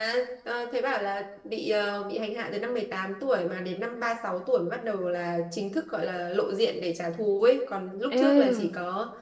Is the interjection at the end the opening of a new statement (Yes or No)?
No